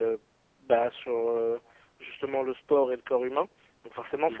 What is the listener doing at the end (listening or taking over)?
listening